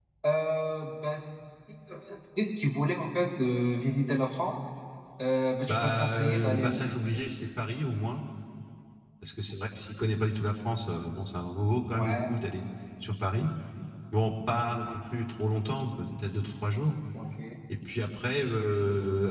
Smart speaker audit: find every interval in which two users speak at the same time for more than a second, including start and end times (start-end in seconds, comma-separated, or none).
5.7-6.9